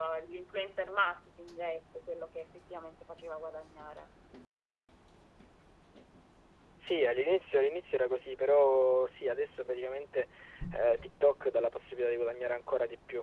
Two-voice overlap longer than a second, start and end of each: none

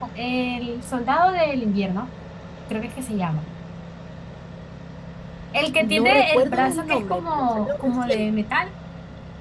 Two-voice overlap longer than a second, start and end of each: 5.8-8.2

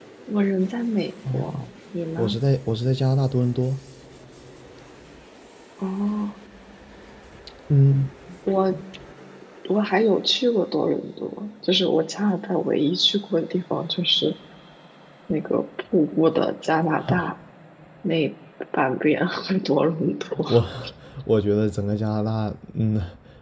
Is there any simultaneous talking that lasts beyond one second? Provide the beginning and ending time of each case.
none

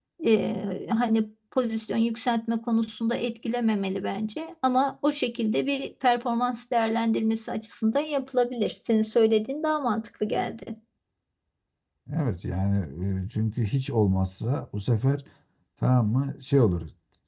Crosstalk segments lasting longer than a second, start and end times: none

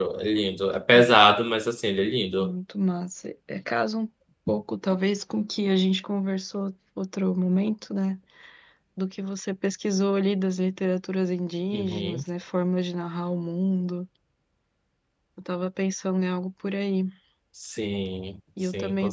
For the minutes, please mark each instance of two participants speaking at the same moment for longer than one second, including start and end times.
none

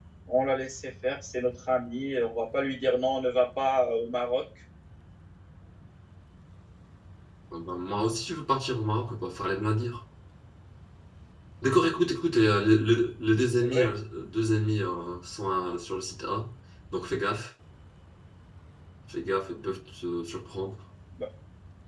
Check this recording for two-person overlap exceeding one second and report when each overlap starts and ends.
none

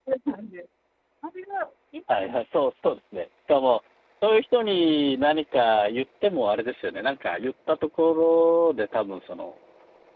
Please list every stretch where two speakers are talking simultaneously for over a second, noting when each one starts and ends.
none

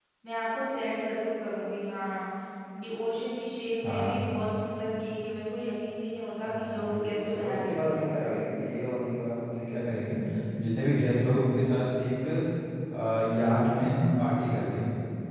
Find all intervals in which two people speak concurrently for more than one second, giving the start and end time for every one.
6.5-8.0

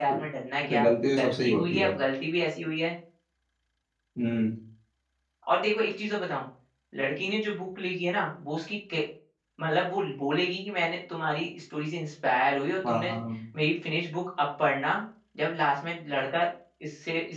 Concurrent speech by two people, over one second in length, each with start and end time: 0.7-1.9

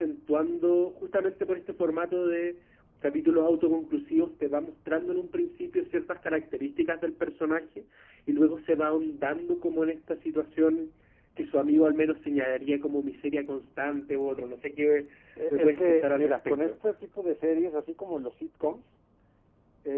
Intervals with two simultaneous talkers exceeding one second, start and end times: 15.5-16.7

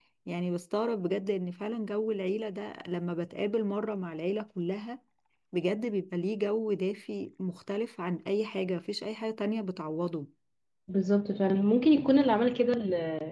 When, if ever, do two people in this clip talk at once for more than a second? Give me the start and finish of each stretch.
none

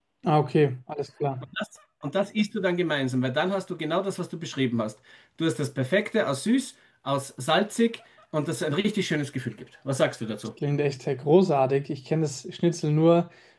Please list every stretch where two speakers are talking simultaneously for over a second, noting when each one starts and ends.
none

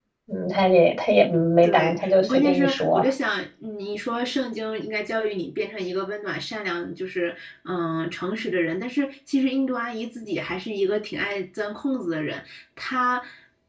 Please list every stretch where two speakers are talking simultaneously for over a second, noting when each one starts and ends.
1.6-3.1

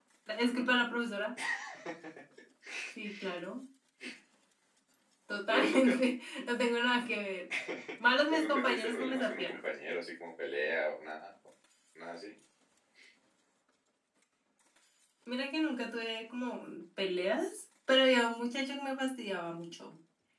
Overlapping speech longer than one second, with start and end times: 8.3-9.6

